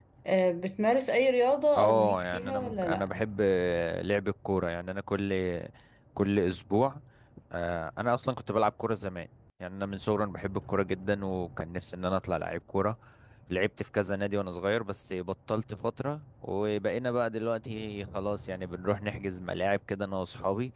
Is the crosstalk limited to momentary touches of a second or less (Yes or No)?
No